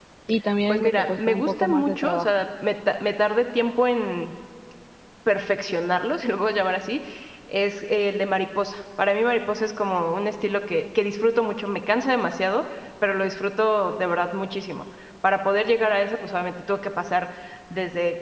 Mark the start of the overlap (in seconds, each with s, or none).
0.7 s